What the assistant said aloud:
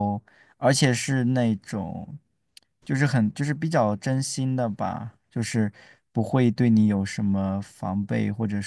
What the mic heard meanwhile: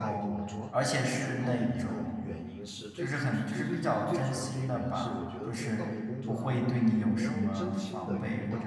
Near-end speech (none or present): present